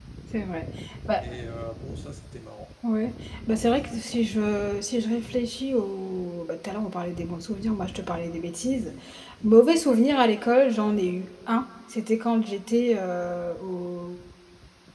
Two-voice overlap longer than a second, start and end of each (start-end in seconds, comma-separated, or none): none